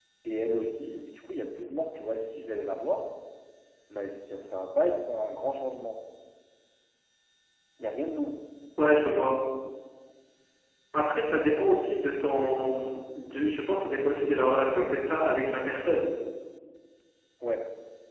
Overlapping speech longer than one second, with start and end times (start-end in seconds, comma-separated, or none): none